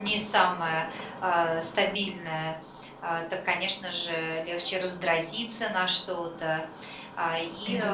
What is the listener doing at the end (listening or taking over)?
listening